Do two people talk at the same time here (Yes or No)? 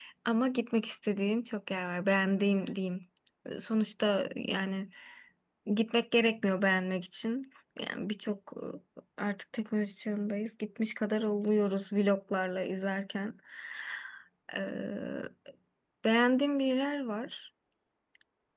No